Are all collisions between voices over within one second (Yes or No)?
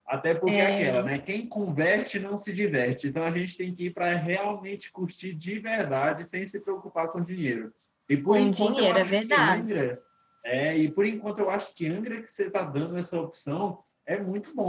No